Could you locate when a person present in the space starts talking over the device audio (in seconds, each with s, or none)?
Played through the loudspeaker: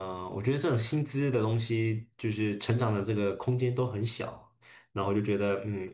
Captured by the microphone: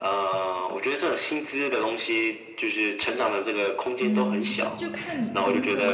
4.0 s